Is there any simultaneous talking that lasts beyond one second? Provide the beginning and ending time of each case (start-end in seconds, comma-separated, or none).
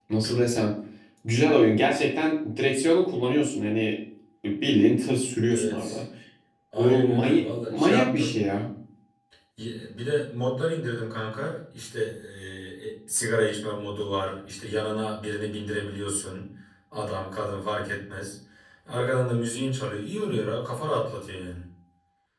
6.8-8.4